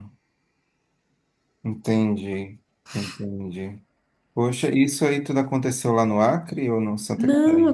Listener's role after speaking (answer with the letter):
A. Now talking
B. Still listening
A